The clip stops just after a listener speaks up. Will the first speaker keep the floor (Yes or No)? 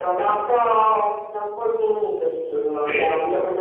Yes